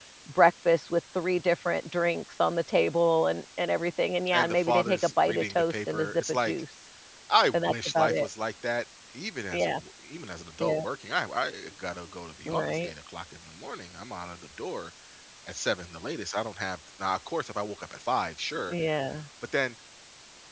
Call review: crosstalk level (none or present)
present